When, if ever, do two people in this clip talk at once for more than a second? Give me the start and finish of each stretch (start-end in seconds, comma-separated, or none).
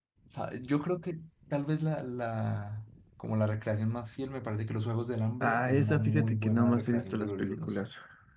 5.4-7.7